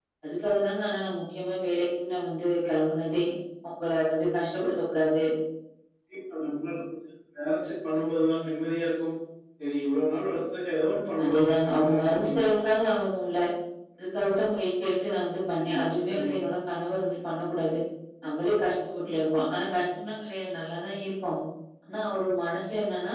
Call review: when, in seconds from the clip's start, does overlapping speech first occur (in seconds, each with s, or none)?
11.2 s